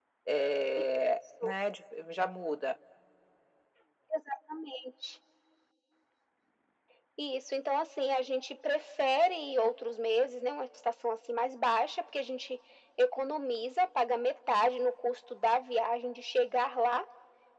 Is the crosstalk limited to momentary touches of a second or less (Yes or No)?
Yes